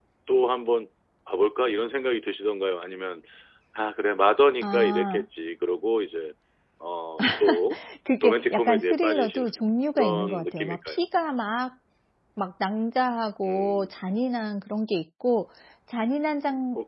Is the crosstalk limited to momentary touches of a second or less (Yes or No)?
No